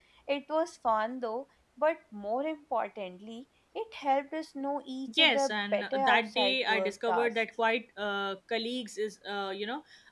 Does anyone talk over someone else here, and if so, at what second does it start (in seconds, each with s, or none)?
5.1 s